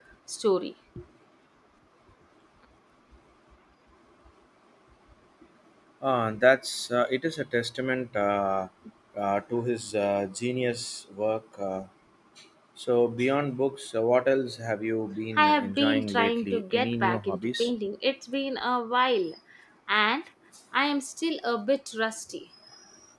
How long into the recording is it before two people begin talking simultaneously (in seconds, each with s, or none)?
15.3 s